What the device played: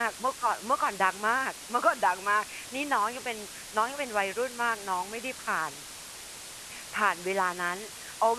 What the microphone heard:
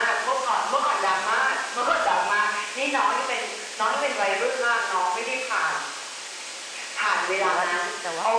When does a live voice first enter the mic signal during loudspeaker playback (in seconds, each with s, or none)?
7.4 s